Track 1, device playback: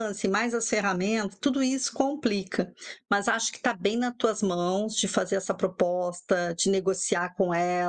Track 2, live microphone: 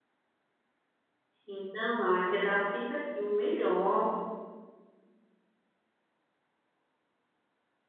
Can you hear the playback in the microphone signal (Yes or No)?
No